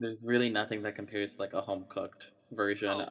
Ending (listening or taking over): taking over